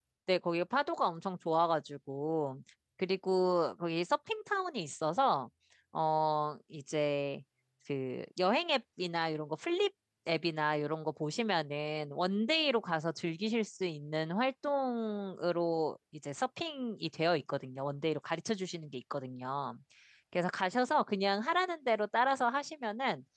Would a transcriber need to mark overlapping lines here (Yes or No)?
No